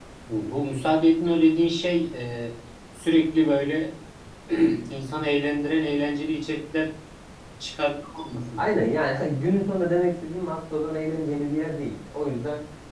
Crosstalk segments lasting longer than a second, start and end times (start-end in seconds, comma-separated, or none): none